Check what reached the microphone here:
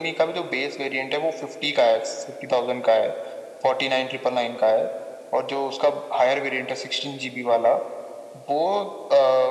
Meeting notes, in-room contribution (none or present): none